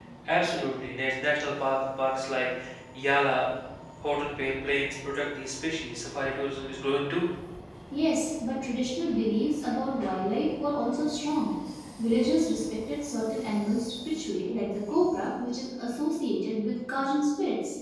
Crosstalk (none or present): none